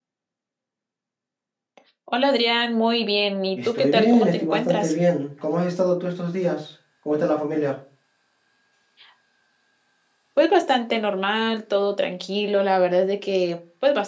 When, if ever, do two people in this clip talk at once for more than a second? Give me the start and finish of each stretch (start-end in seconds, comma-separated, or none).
3.6-4.9